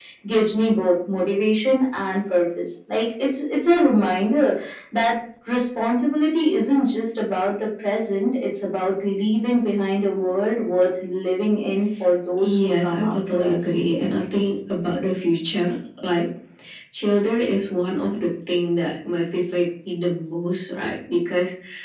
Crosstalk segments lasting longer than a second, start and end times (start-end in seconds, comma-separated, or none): 12.4-13.8